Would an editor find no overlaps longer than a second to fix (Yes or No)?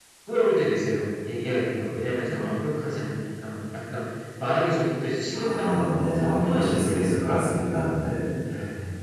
No